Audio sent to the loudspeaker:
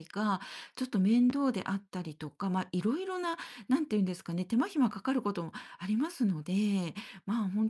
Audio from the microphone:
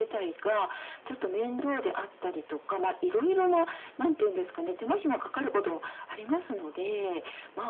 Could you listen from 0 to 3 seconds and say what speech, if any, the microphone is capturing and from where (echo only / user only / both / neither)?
echo only